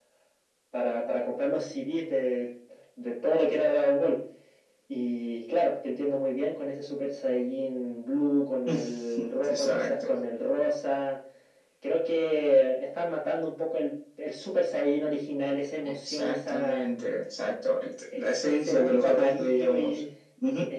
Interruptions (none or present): present